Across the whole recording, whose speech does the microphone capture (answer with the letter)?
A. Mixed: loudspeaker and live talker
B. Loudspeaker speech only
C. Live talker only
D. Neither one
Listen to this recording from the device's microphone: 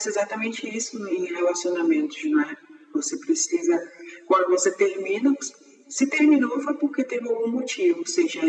B